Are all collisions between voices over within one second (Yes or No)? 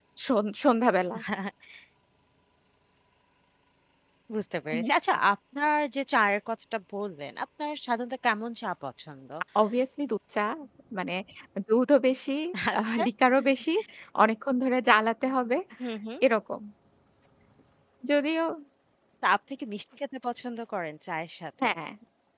Yes